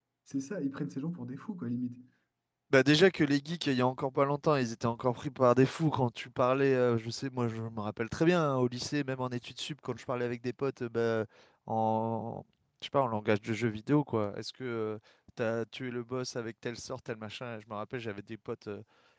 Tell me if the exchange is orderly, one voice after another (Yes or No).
Yes